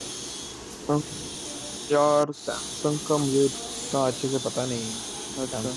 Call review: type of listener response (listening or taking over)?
taking over